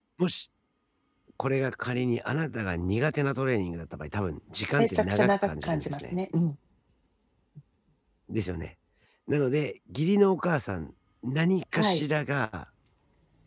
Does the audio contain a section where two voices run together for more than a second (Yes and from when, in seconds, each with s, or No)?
Yes, from 4.8 s